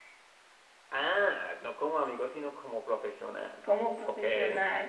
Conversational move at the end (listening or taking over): taking over